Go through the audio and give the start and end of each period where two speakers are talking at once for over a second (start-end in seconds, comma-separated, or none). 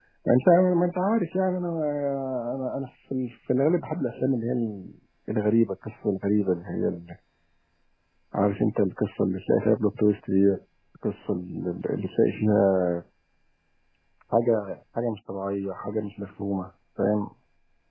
none